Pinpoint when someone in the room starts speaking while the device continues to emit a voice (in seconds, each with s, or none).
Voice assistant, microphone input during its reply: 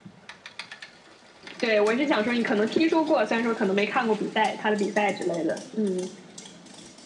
none